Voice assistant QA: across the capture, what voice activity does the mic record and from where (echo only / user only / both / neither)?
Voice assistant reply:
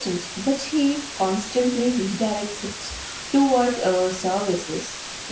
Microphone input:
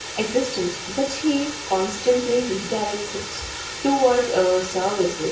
echo only